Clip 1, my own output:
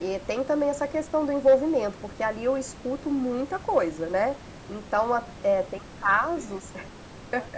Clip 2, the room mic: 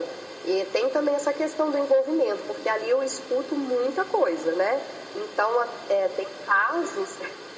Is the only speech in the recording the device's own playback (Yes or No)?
Yes